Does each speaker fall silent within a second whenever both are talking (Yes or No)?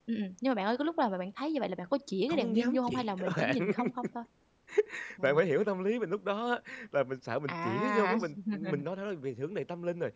No